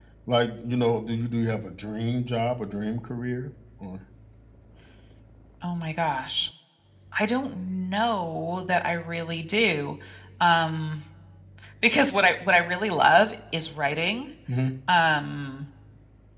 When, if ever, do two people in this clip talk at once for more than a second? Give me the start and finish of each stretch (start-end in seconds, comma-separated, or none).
none